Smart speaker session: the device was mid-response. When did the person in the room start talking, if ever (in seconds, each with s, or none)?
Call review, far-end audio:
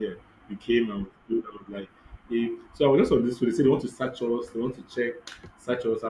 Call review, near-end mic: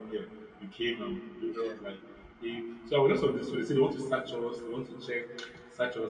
1.5 s